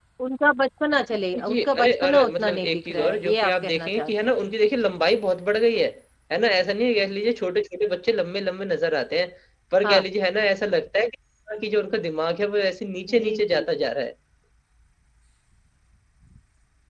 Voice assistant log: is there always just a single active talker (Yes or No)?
No